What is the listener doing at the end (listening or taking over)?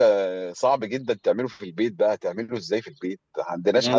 taking over